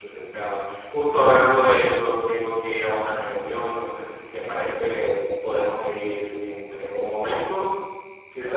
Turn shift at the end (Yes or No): Yes